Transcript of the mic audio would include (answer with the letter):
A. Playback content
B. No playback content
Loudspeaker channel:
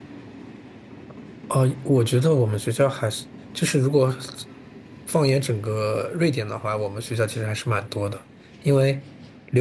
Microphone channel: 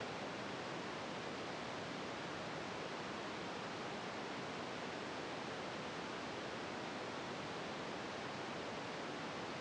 B